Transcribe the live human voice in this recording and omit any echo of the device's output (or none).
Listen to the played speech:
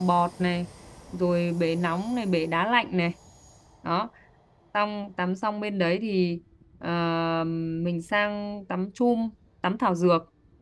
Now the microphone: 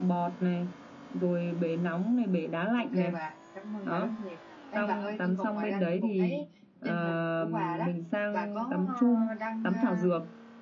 Ok bà, cảm ơn bà rất nhiều. Ê bà ơi, tôi còn ngoài ra tôi còn thấy trên hình của bà đó, bà có ờ, đăng ờ,